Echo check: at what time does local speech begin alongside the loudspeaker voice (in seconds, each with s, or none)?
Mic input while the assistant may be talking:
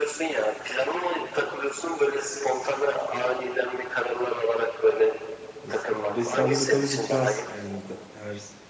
5.6 s